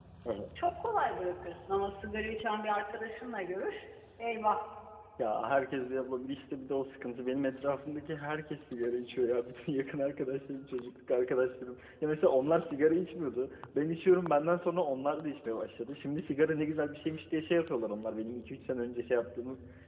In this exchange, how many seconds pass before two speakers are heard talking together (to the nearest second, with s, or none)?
none